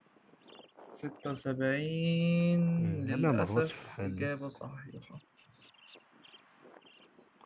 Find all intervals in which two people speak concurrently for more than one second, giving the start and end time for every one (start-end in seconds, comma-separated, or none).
3.0-4.3